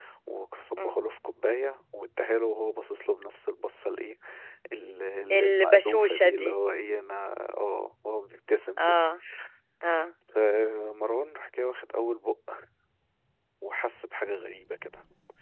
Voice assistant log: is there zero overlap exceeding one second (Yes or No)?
No